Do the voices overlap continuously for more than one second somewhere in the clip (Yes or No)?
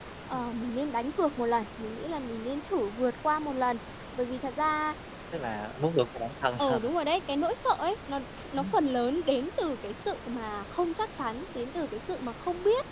No